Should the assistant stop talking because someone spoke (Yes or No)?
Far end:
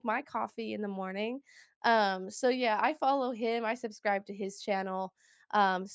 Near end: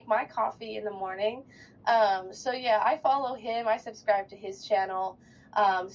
No